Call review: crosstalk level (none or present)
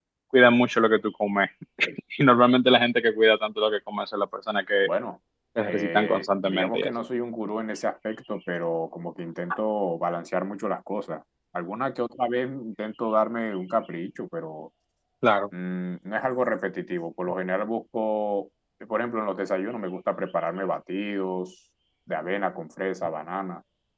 present